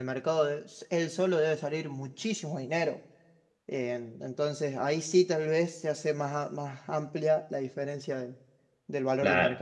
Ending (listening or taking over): taking over